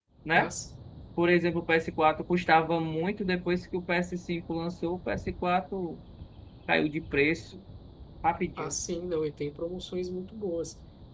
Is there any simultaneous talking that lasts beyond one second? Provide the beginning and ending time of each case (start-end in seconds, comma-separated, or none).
none